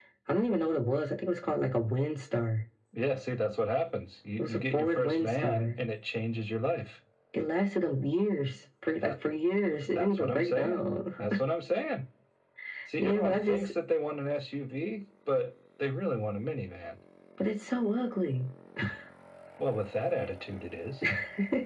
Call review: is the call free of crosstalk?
No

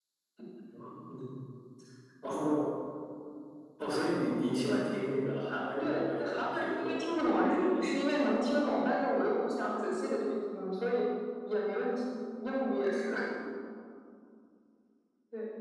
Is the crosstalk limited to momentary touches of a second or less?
No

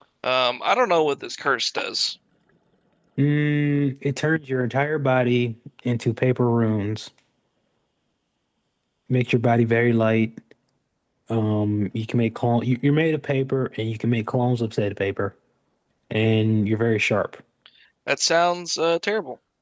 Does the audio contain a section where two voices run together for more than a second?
No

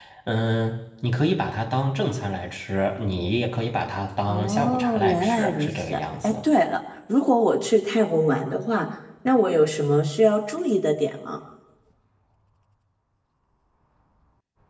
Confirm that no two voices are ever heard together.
No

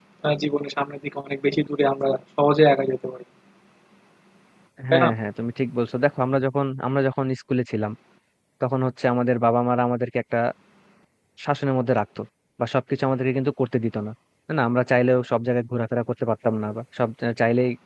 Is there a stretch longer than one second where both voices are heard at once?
No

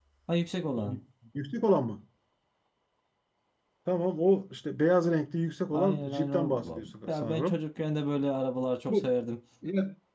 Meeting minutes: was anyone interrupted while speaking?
Yes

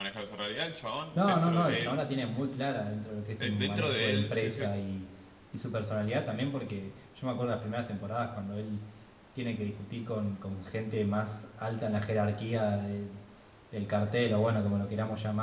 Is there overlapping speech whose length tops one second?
Yes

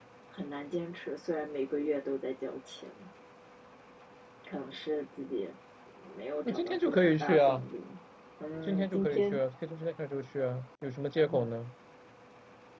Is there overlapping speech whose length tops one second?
Yes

